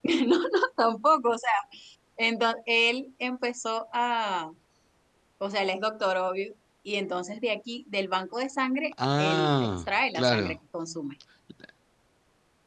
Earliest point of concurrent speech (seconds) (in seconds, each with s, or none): 9.2 s